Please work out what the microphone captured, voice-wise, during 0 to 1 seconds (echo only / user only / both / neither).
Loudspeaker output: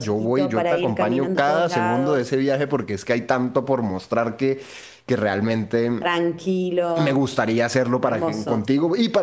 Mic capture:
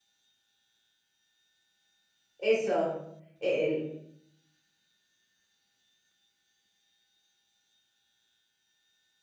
neither